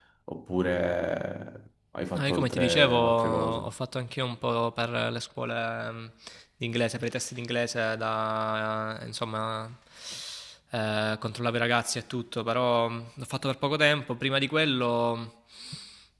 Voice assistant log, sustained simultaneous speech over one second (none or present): present